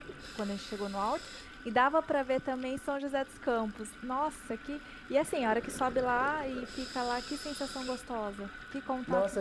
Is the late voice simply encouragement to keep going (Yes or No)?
No